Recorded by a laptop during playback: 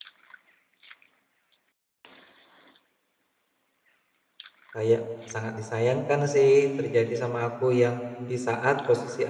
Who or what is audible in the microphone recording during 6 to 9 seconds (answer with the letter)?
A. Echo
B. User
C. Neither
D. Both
B